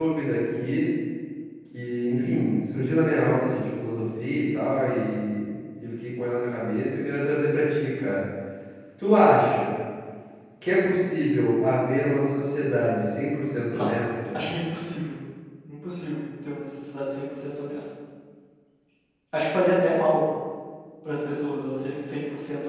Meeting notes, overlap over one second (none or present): none